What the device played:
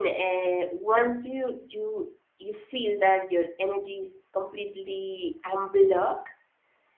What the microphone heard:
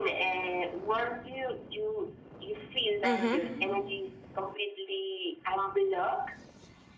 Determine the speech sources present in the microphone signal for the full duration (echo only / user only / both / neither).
both